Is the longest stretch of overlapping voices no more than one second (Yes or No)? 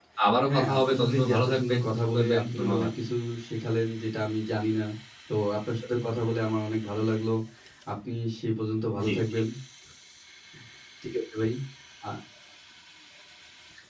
No